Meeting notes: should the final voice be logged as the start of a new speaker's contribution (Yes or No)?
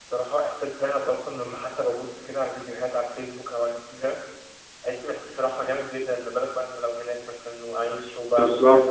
Yes